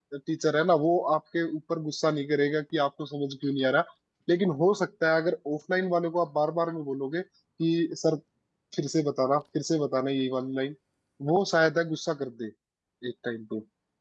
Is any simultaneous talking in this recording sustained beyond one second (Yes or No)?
No